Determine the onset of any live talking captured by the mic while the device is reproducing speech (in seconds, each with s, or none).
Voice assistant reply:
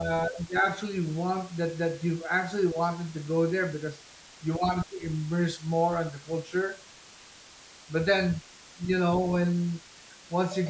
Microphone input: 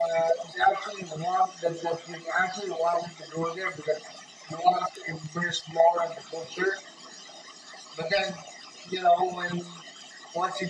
none